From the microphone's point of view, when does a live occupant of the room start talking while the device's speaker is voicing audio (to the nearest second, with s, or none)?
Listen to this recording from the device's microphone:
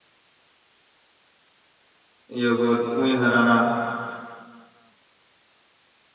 2 s